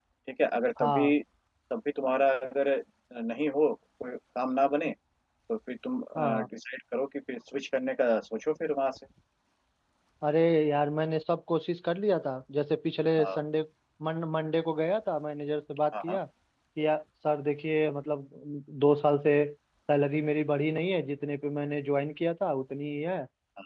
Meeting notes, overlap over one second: none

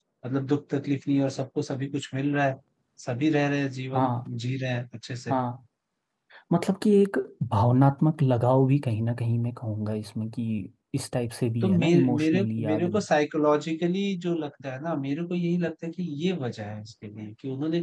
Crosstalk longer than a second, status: present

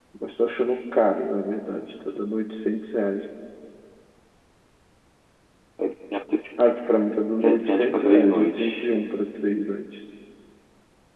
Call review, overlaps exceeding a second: present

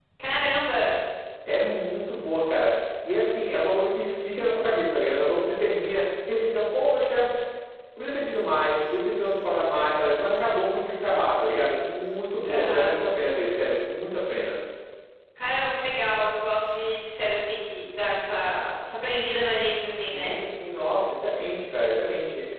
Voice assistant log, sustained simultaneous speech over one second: none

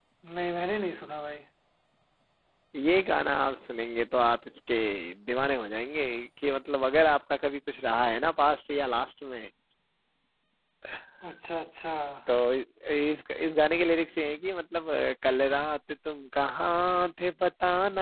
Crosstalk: none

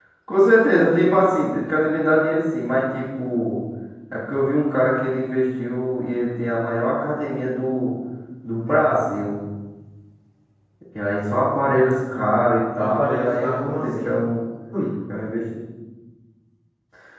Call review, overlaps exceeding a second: present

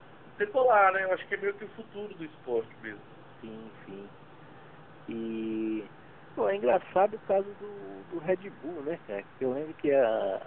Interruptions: none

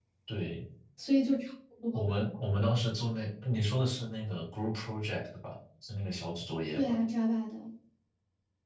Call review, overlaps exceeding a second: none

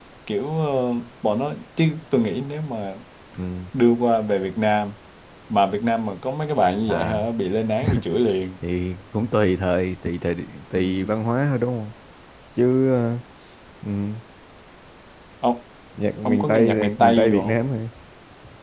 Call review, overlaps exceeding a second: present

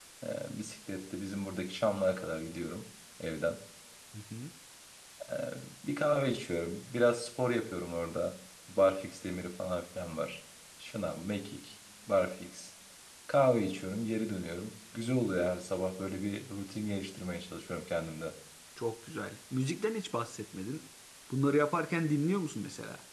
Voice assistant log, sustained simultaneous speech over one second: none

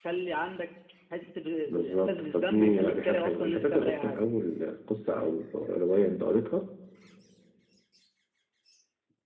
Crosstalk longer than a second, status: present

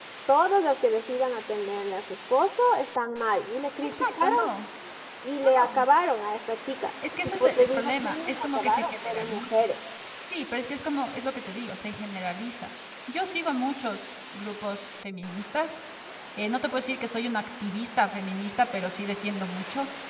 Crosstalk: present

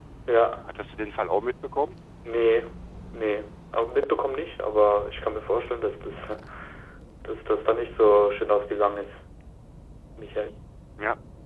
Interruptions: none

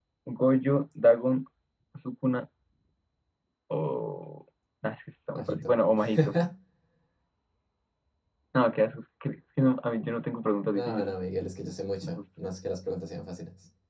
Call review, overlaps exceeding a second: none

